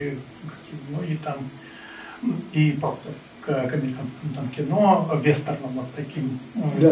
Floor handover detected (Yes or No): Yes